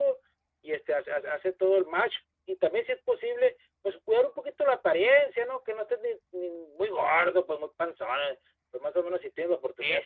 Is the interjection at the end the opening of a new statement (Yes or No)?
No